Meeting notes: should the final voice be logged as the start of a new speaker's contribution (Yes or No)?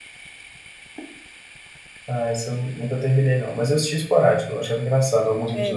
Yes